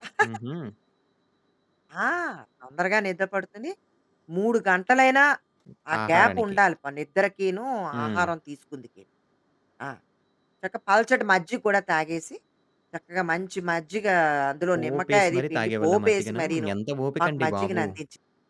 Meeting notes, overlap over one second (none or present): present